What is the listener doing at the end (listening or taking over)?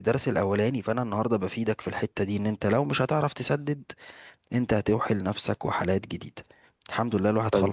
taking over